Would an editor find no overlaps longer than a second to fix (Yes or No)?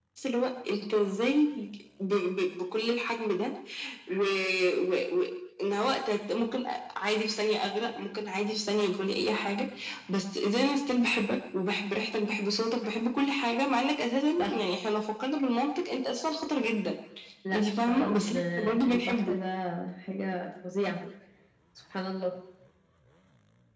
No